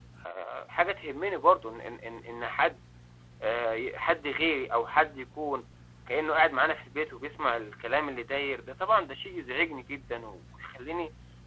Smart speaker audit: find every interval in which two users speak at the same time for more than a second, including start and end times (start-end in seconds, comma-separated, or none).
none